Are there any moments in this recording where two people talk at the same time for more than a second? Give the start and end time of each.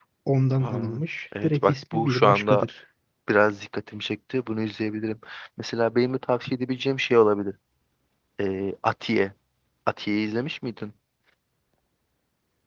1.4-2.6

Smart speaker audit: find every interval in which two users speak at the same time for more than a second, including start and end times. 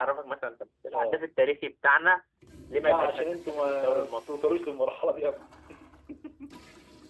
2.8-4.2

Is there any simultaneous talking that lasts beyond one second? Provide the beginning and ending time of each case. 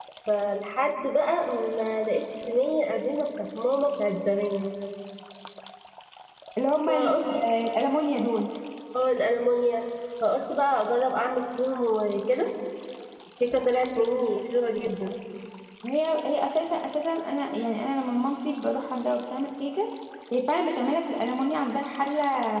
none

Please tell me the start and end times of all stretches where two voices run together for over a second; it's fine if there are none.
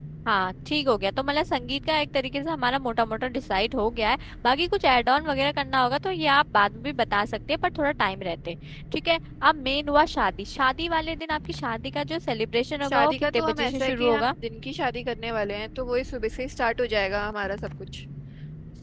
12.9-14.3

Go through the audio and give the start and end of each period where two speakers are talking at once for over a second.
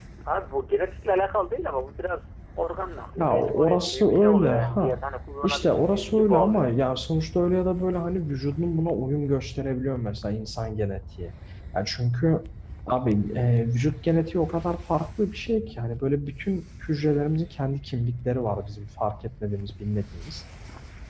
3.2-5.0, 5.4-6.7

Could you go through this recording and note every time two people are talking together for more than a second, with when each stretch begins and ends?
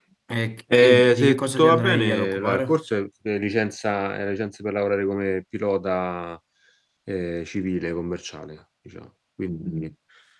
0.7-2.8

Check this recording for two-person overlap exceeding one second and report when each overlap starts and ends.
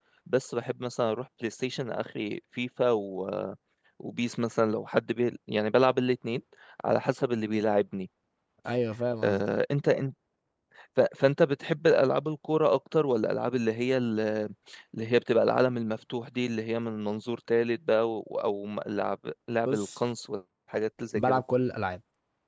none

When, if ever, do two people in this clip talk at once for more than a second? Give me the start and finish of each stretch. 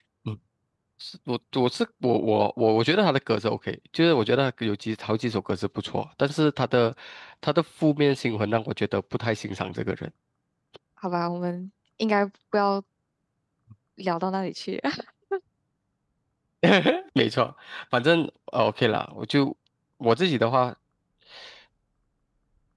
none

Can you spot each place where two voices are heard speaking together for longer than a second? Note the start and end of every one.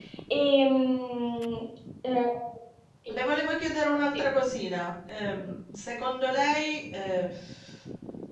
none

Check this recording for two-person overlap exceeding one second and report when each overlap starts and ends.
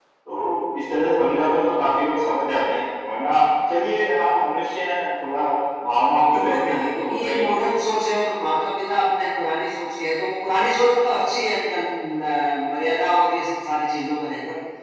6.3-7.5

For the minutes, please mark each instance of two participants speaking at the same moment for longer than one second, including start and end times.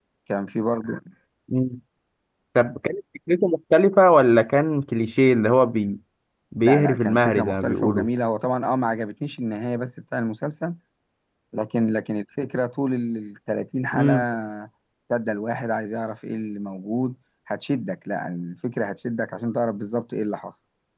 6.6-8.1

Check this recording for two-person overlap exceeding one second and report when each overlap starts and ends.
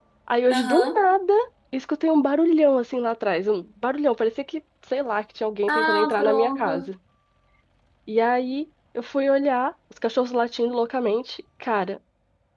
5.7-6.9

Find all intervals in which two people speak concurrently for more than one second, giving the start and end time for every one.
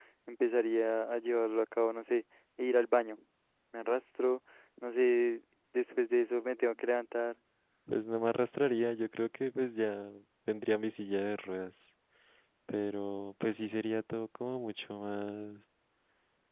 none

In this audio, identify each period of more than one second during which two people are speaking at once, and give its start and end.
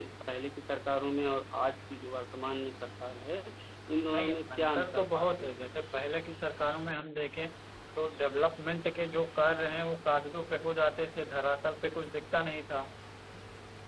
4.2-5.8

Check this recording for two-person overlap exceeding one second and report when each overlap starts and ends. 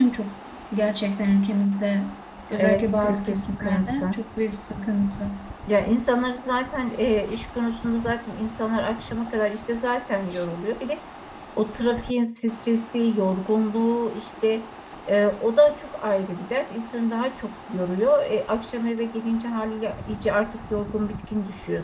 2.5-4.0

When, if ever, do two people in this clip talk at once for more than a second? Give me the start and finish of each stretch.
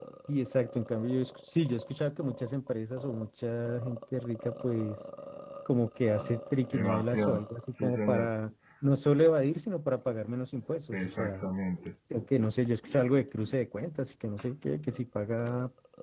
6.7-8.3

